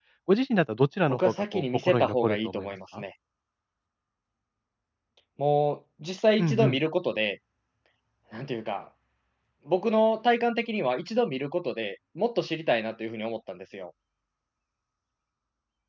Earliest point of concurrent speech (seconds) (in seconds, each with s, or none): 1.1 s